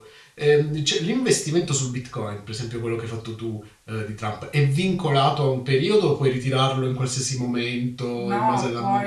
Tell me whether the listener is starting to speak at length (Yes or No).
Yes